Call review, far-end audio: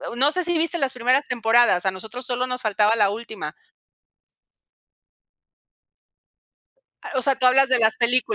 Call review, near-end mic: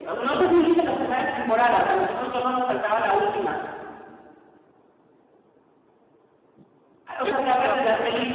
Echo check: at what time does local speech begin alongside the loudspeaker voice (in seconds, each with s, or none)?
7.2 s